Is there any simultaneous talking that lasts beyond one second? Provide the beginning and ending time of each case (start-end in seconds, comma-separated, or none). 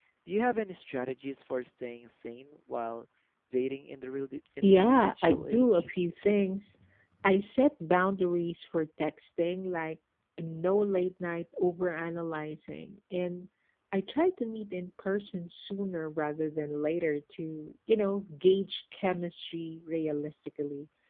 4.6-5.9